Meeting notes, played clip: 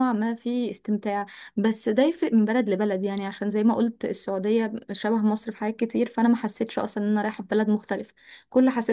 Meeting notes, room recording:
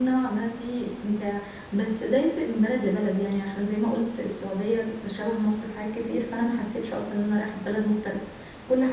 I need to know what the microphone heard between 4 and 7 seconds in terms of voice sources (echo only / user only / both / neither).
echo only